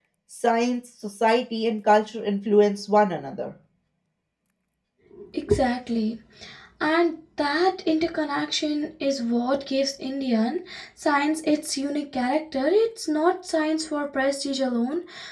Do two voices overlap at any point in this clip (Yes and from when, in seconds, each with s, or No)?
No